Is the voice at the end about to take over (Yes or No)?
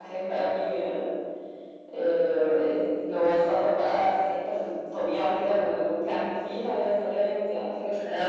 Yes